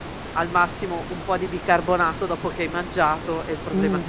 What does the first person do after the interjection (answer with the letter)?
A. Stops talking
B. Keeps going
A